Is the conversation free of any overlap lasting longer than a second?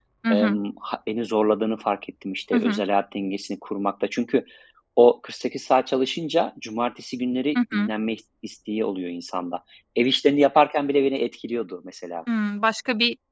Yes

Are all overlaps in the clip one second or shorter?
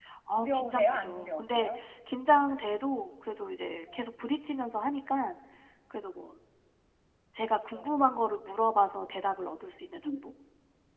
No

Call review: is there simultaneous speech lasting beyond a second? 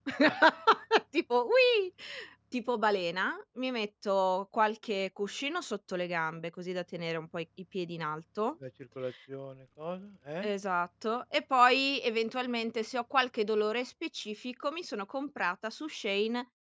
No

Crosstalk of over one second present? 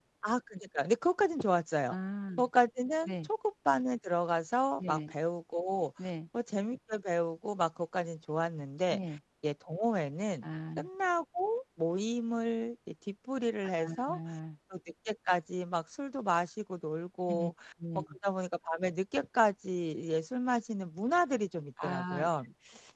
No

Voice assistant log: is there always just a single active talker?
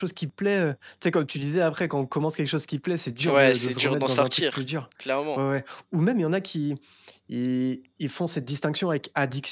No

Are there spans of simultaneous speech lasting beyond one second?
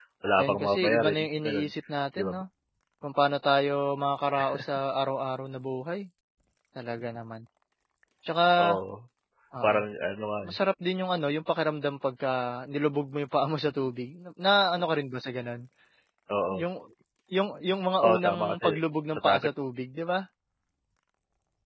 Yes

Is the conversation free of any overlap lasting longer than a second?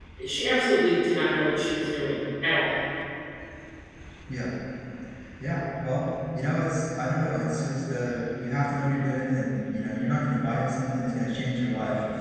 Yes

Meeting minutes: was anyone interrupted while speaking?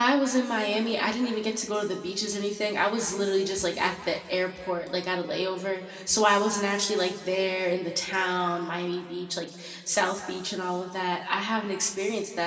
No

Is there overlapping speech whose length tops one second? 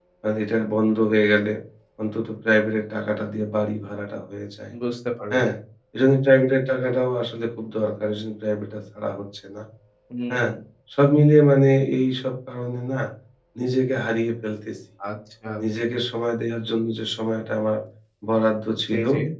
No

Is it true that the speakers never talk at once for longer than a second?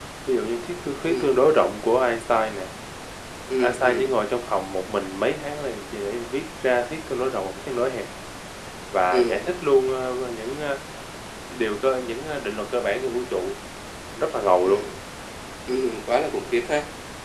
Yes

